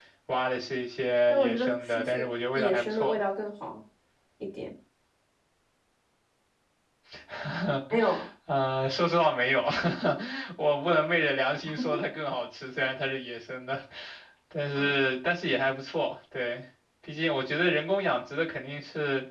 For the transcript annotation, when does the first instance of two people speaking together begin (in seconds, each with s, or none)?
1.3 s